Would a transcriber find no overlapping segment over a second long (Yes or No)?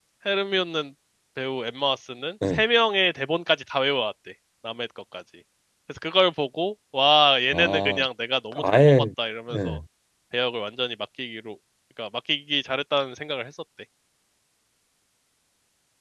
Yes